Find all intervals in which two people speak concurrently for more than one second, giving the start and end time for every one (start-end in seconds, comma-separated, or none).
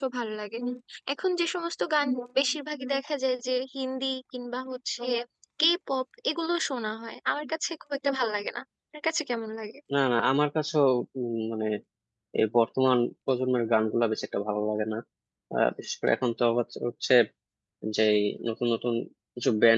none